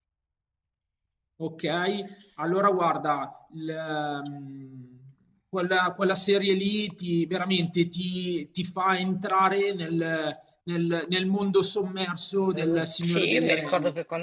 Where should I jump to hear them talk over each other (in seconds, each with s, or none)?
12.5 s